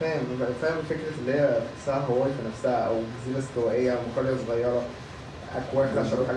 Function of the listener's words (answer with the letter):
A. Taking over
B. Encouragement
B